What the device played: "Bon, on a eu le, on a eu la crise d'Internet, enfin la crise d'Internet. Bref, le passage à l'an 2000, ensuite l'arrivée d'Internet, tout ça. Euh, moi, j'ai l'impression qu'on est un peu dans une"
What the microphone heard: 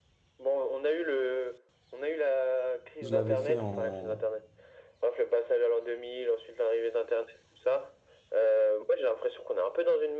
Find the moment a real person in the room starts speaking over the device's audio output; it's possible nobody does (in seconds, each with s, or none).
3.0 s